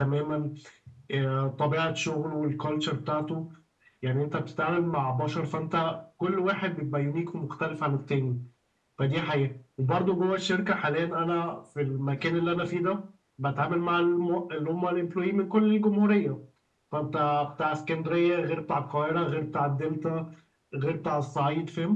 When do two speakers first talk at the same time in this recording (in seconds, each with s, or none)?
none